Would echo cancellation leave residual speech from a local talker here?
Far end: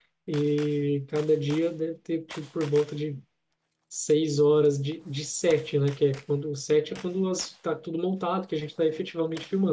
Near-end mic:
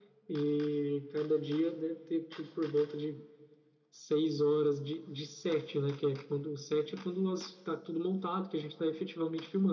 No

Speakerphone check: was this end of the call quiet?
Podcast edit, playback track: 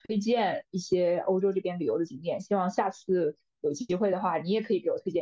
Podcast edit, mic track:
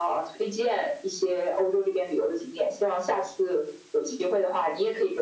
Yes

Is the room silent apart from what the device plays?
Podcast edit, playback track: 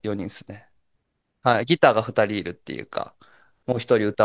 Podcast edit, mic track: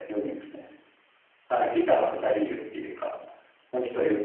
Yes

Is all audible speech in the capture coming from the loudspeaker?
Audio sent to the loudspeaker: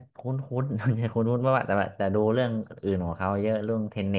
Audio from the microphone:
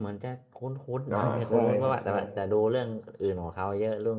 No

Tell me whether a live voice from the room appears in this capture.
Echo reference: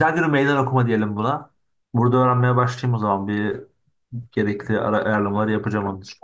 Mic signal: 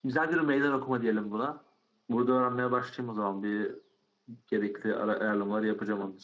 No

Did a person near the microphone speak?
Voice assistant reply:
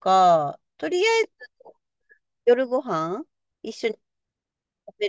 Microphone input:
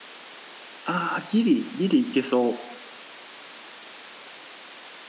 Yes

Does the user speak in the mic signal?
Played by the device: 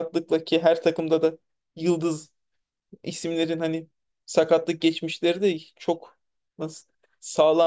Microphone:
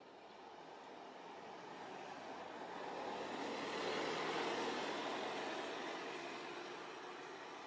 No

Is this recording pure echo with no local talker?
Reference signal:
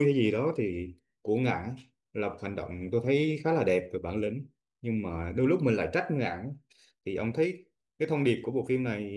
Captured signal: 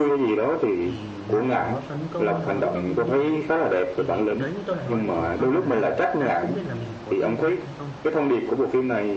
No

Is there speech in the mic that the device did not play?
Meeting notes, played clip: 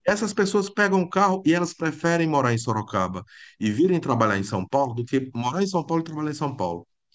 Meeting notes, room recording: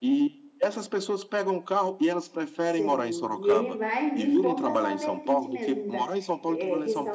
Yes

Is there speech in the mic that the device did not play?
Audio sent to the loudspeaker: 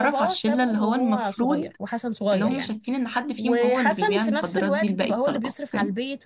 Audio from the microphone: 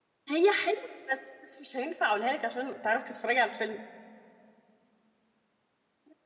Yes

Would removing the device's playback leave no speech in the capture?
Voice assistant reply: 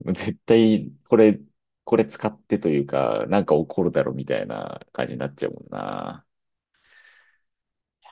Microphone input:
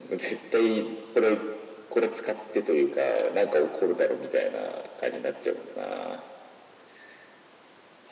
Yes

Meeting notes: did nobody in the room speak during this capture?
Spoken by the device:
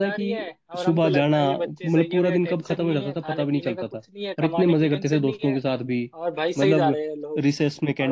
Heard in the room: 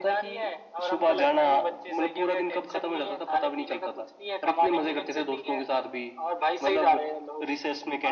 Yes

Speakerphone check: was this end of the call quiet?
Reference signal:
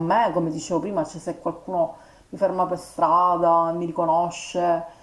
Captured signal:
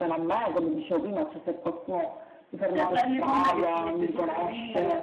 No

